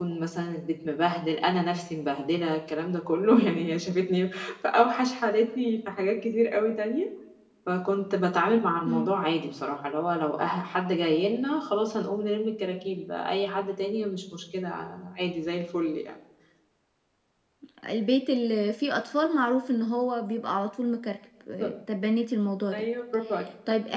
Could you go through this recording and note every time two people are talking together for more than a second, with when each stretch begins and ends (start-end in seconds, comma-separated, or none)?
none